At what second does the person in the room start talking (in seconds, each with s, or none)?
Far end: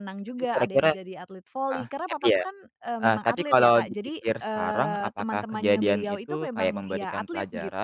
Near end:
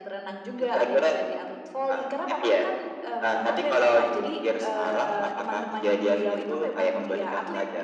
none